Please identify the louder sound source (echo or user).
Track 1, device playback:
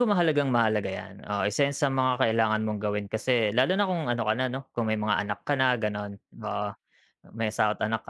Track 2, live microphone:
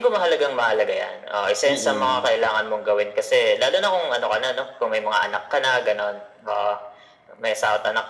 echo